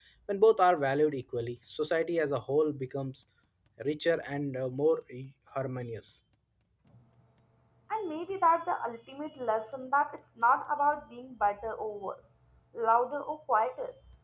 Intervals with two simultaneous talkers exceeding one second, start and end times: none

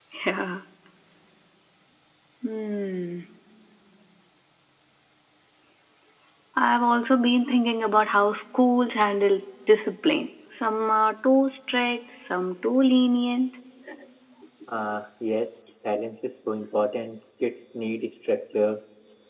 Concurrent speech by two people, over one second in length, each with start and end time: none

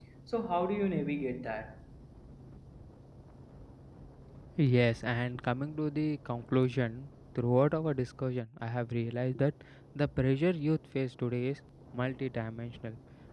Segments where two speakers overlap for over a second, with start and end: none

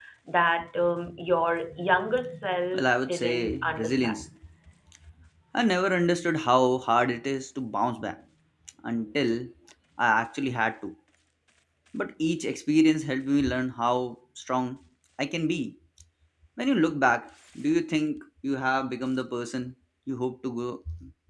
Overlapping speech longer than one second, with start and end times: 2.7-4.2

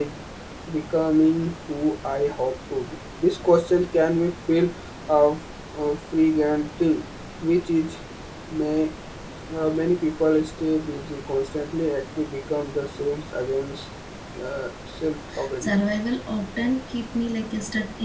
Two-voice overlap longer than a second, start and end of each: none

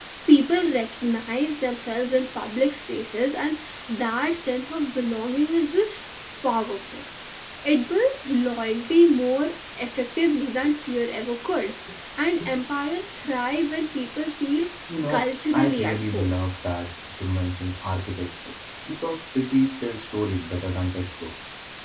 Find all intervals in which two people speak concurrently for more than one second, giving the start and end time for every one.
15.1-16.3

